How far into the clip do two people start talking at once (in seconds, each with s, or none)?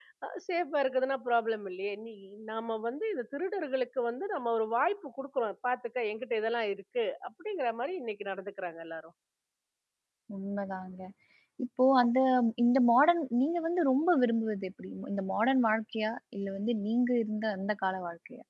none